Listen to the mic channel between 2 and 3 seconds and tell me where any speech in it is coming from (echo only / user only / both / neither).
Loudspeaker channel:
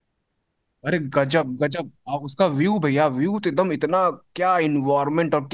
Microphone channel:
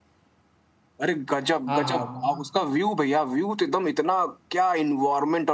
both